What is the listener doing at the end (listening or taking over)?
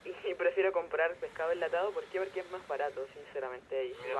listening